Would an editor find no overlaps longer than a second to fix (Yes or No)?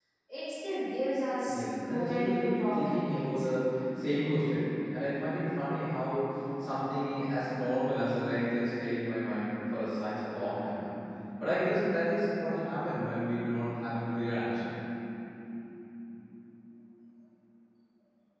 No